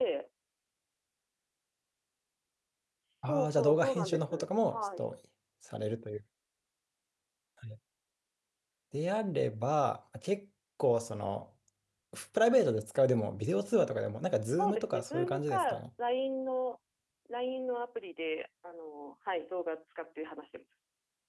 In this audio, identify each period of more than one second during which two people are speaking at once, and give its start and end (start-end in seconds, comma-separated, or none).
3.2-5.0, 14.6-15.8